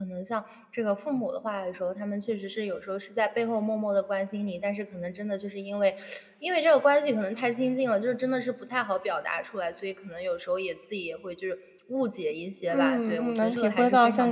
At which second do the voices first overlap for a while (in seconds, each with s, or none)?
12.7 s